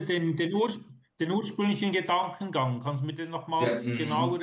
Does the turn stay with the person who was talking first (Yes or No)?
No